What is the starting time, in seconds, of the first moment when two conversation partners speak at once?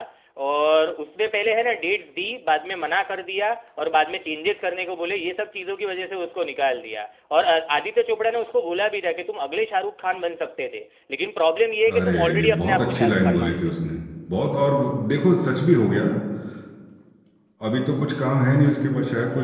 11.9 s

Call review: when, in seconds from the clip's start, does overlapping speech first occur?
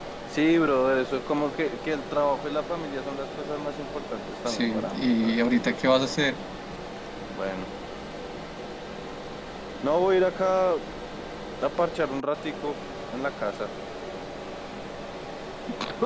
4.5 s

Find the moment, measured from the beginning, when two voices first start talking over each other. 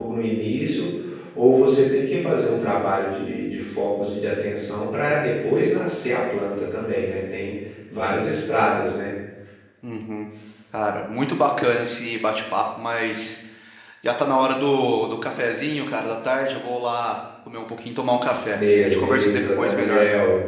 18.5 s

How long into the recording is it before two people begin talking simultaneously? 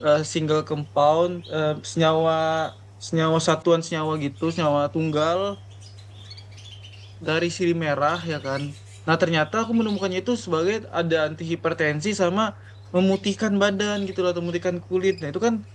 none

